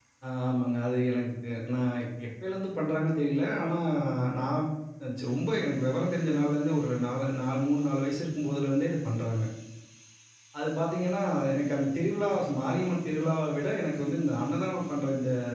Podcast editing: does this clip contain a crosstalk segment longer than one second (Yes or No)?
No